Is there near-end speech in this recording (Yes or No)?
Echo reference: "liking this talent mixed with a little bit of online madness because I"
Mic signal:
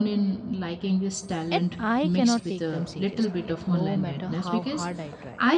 Yes